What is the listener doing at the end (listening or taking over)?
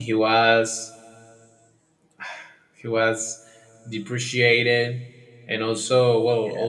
listening